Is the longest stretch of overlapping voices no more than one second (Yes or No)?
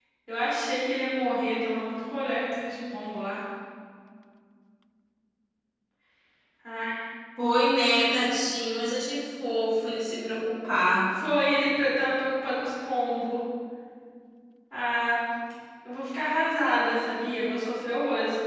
Yes